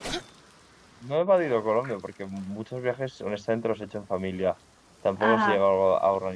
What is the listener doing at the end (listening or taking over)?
listening